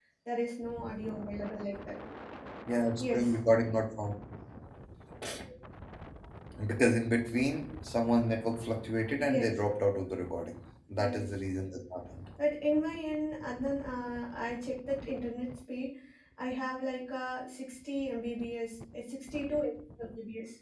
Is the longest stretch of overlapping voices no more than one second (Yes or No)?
Yes